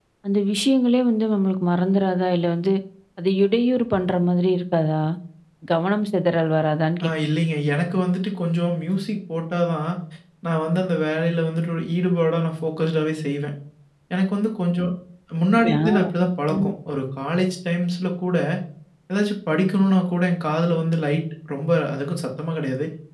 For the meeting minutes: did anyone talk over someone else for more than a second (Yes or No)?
No